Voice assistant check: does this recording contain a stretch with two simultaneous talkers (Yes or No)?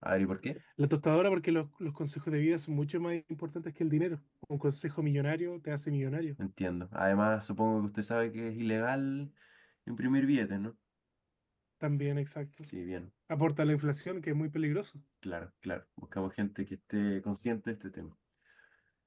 No